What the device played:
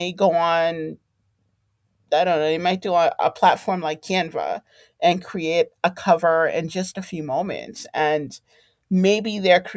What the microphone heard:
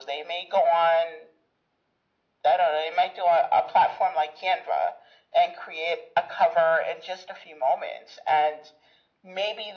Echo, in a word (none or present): present